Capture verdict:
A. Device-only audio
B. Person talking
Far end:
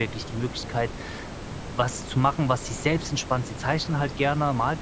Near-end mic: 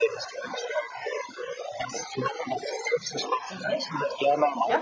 B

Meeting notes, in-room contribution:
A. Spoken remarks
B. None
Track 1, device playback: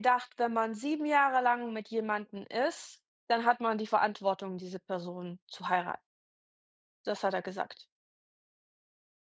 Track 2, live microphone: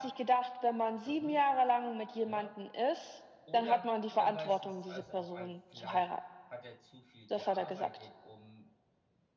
A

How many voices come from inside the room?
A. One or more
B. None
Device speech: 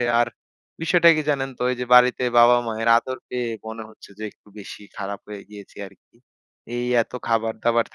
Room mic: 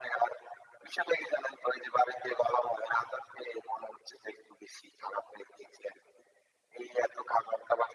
B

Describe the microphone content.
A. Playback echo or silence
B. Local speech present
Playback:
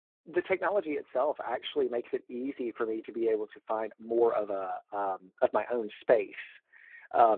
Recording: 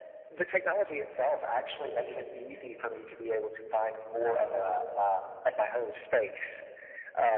A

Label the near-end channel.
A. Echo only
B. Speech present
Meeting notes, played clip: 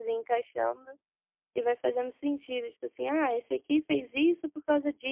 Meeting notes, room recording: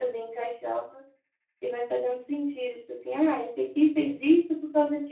A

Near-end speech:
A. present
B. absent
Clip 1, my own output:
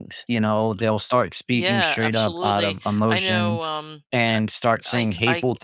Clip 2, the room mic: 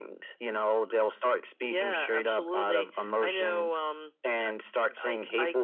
B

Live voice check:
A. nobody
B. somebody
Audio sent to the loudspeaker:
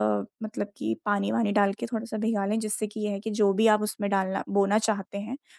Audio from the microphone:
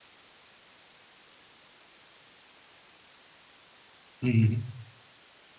B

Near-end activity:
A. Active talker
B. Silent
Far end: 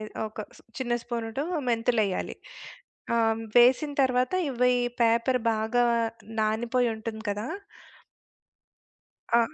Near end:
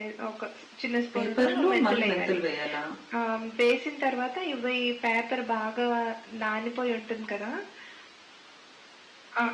A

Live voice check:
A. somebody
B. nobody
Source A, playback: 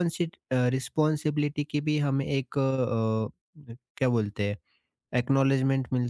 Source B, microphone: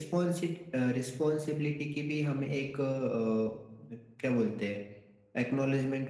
B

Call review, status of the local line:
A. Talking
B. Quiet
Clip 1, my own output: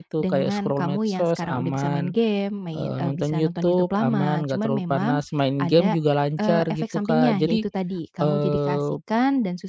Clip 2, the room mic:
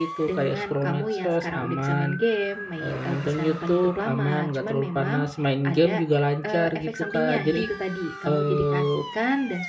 B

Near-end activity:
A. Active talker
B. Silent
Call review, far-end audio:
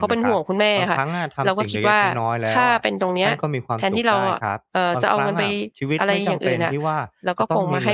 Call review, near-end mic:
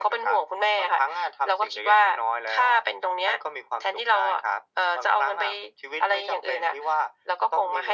B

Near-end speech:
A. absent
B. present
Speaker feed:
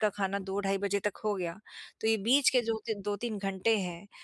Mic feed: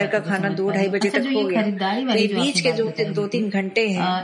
B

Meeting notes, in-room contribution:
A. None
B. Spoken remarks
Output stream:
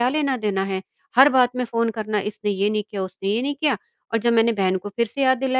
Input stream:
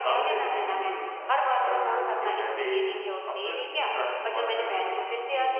B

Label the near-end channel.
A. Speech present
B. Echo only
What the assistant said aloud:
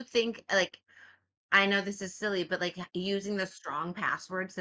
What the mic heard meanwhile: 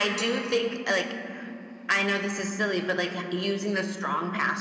B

